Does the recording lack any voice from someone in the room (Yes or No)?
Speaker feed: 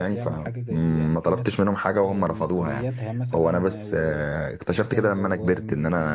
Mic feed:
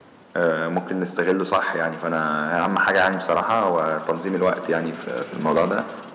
No